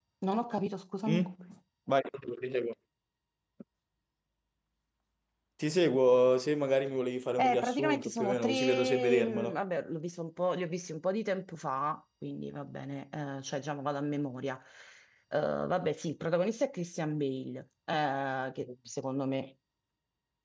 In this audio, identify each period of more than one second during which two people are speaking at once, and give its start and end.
7.4-9.6

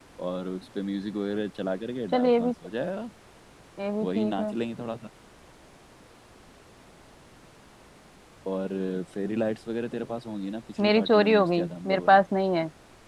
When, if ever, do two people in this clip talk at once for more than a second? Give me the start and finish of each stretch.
10.8-12.2

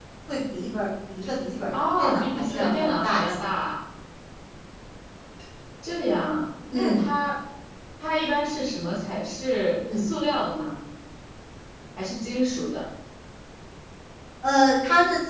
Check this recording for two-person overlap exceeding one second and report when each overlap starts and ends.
1.7-3.3

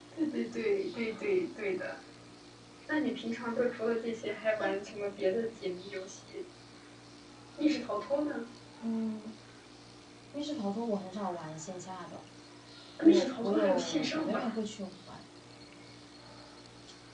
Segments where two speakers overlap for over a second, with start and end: 13.0-14.5

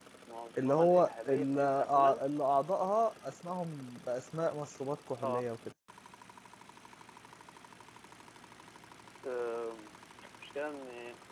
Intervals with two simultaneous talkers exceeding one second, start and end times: 0.6-2.2

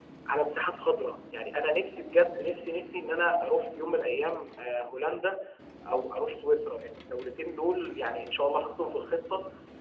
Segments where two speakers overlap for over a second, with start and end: none

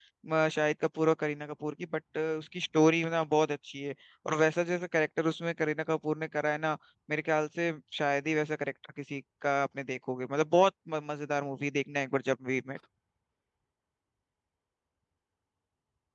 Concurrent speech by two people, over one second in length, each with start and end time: none

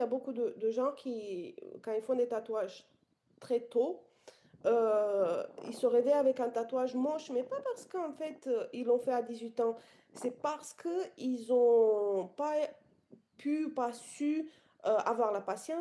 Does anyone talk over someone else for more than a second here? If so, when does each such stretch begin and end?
none

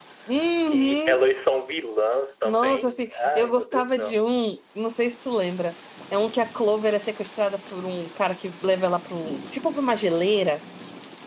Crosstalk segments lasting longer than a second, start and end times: 2.5-4.2

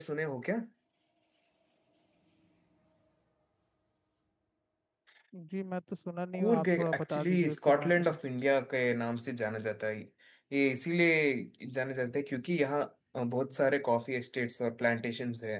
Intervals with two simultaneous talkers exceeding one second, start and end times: 6.3-8.2

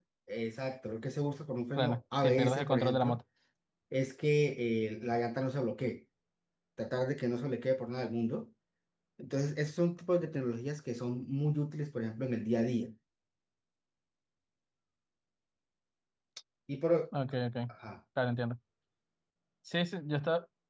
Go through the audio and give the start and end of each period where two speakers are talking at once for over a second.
1.8-3.2

